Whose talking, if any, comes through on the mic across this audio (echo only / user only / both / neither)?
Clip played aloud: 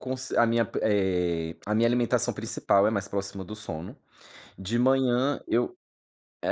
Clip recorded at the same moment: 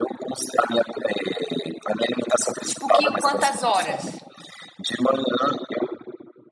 both